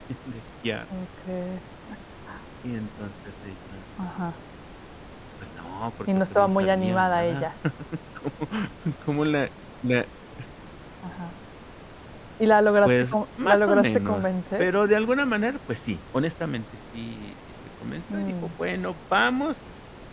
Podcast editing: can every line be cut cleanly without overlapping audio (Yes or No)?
No